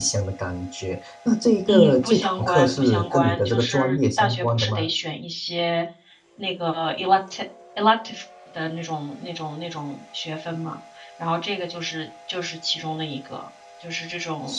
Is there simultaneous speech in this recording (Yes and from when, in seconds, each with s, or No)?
Yes, from 1.7 s